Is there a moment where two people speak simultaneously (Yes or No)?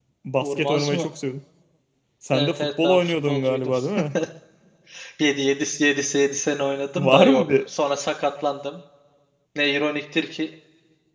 Yes